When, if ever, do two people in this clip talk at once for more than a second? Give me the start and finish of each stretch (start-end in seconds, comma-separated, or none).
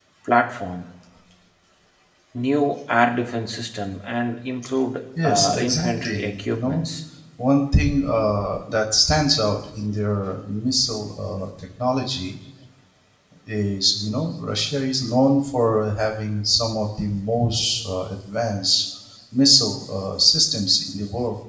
5.2-6.9